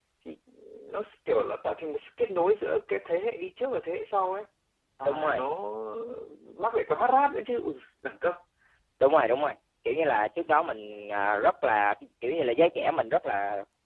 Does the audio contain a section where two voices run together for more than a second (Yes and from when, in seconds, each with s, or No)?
No